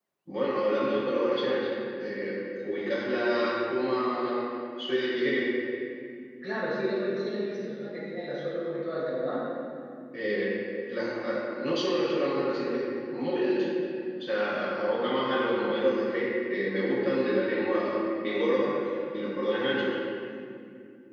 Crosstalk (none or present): none